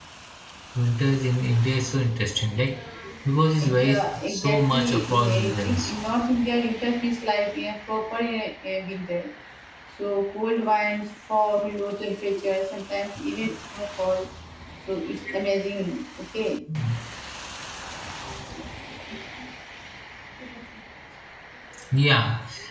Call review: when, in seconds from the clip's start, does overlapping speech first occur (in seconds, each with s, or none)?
3.6 s